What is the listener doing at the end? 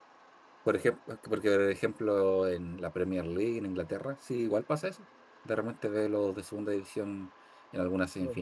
listening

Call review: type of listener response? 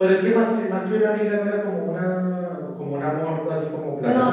taking over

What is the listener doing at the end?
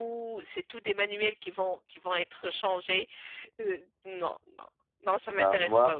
taking over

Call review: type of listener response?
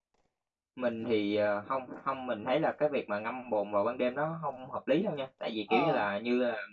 listening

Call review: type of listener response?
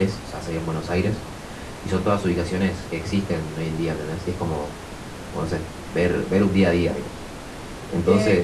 taking over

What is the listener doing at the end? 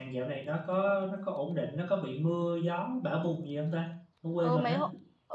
taking over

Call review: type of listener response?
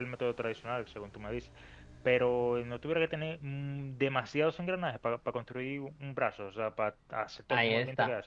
taking over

